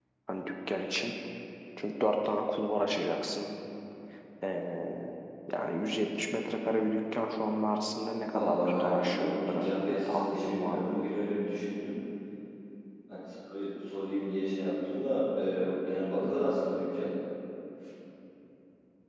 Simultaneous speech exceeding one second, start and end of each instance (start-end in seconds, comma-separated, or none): 8.2-11.0